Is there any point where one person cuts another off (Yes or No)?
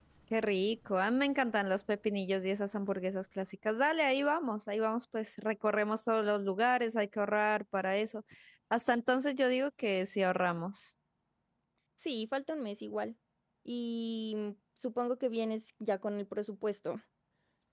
No